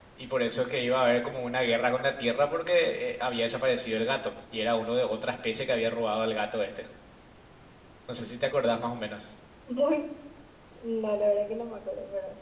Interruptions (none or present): none